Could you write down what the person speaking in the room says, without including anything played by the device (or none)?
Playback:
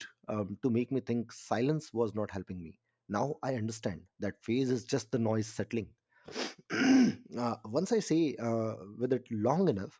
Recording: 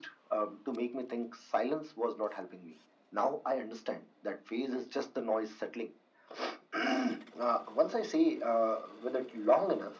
none